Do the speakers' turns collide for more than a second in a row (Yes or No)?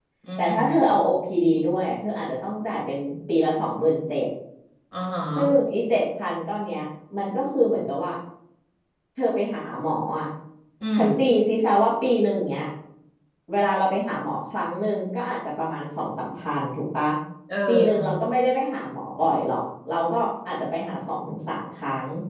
No